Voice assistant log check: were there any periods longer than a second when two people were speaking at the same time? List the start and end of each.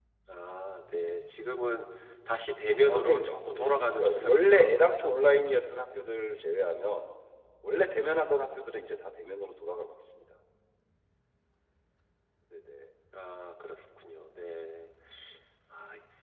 2.8-4.7

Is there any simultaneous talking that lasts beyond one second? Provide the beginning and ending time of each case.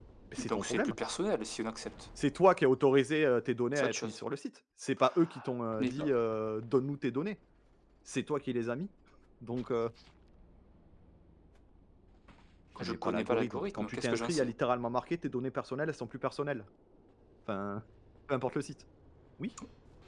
12.8-14.5

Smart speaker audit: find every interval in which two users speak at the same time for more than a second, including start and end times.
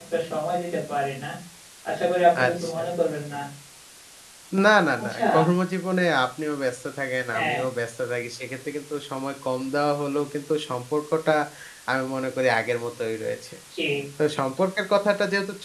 none

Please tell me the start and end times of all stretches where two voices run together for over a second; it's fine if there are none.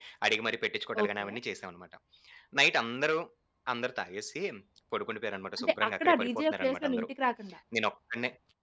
5.6-7.1

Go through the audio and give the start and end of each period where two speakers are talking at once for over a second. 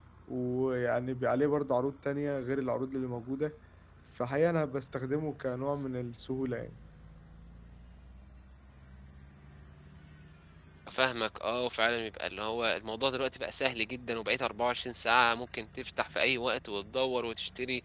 none

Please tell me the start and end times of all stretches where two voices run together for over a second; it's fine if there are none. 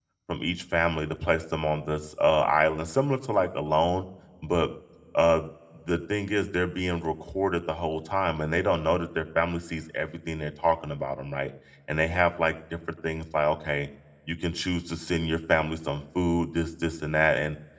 none

